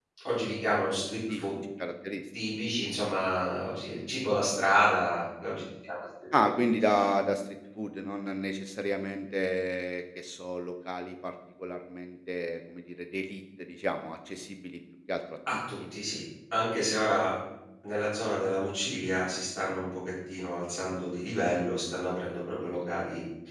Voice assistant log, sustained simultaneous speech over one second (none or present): none